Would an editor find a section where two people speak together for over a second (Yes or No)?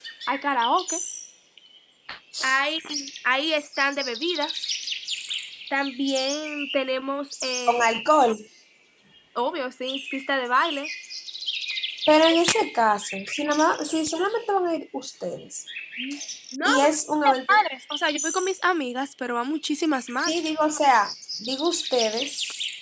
No